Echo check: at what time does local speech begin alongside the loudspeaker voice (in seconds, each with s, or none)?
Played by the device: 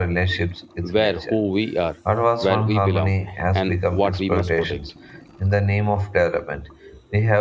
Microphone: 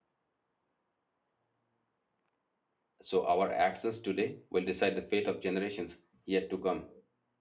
3.0 s